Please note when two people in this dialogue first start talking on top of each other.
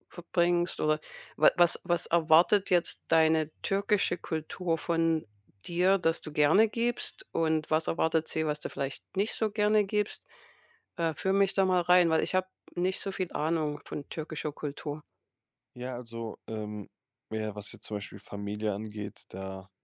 none

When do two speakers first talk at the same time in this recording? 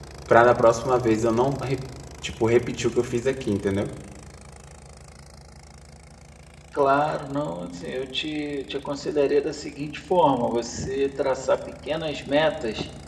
none

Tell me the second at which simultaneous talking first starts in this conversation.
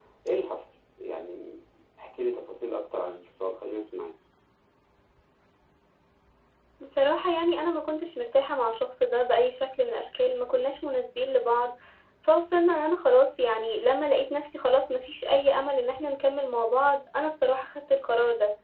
none

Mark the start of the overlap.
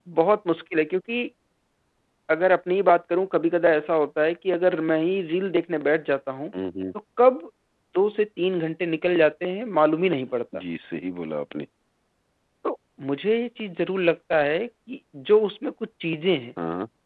none

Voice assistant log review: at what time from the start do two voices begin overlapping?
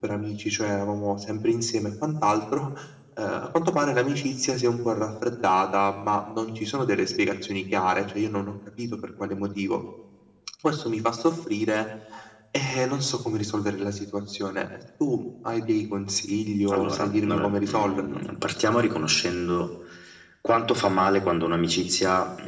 16.7 s

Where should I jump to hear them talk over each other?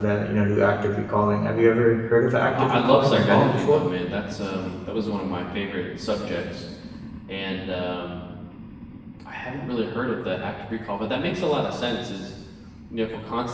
2.5 s

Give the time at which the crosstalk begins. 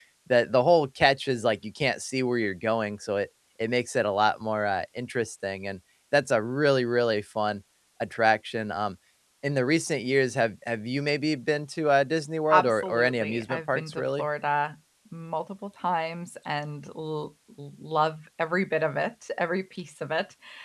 12.5 s

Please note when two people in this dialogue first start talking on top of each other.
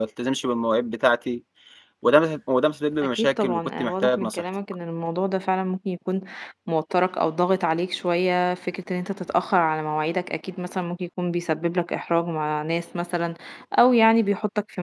3.1 s

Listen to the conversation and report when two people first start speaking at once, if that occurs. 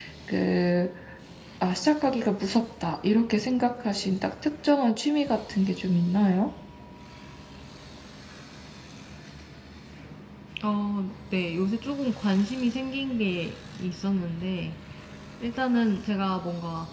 none

